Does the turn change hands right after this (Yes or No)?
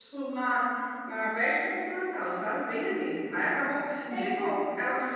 No